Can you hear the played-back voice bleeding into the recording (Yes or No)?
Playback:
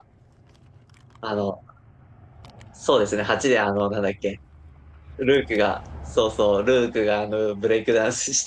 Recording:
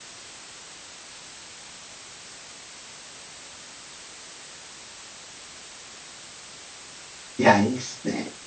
No